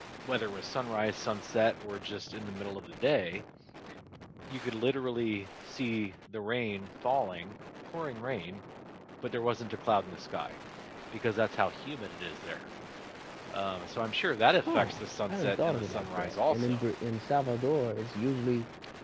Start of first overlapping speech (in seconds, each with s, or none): 14.7 s